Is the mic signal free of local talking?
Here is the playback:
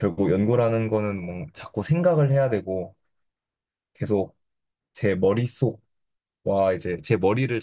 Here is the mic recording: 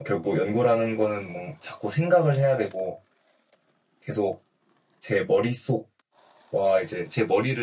Yes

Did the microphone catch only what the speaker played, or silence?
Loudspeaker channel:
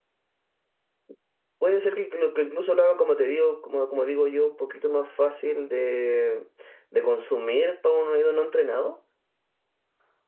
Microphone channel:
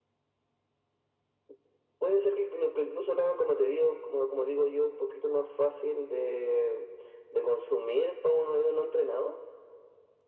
Yes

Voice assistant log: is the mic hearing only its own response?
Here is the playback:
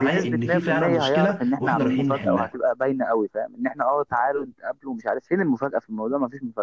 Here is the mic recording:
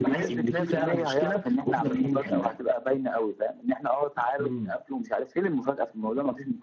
No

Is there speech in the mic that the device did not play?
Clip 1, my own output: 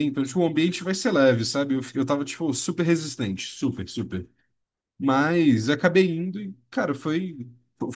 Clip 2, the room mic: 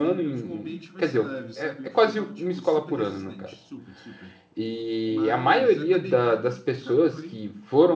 Yes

